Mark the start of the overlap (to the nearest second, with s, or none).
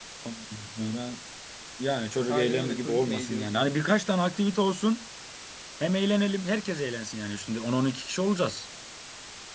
2 s